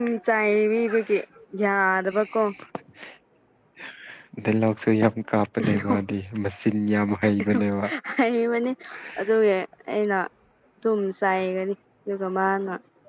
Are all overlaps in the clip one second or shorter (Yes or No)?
Yes